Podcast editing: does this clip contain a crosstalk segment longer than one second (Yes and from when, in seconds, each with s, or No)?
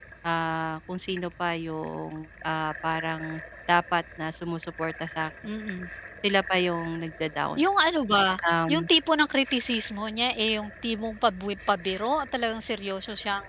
No